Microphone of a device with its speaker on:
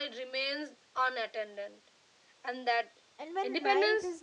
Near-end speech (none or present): present